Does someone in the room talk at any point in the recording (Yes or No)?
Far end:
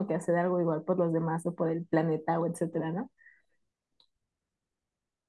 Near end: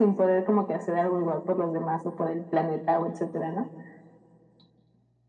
No